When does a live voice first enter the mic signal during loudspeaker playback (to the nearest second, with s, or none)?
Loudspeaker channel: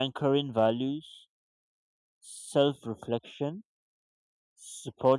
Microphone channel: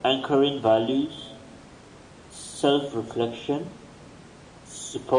none